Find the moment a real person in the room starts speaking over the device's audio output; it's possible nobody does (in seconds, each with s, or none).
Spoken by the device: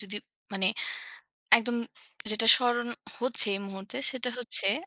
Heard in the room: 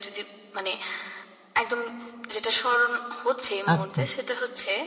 3.7 s